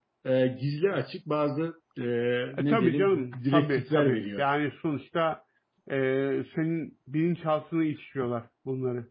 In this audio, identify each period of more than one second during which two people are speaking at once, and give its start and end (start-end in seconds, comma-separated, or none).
2.6-4.4